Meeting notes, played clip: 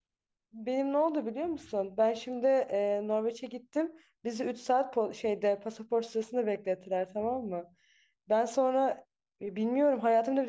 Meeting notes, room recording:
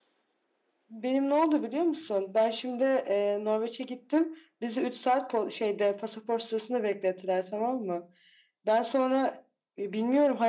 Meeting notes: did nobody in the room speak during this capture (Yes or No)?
Yes